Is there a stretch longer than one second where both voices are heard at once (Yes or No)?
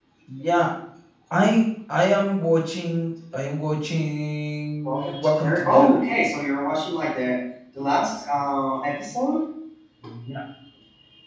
Yes